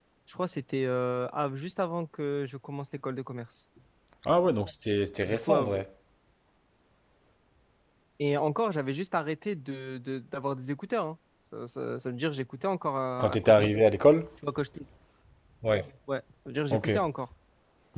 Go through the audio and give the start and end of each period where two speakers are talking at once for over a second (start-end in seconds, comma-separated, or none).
none